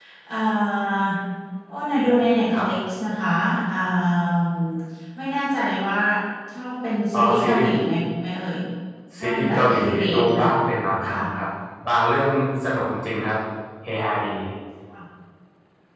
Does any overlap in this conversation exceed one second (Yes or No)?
Yes